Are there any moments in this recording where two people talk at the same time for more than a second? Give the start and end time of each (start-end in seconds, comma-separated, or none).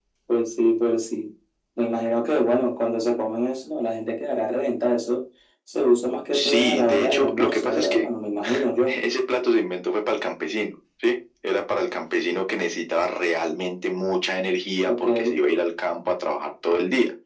6.3-8.0